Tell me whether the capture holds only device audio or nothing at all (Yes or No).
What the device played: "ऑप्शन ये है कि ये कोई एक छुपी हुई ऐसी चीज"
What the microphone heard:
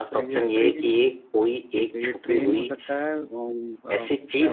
No